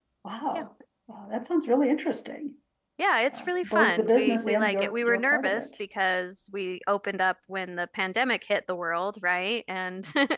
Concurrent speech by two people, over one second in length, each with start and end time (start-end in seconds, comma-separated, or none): 3.3-5.7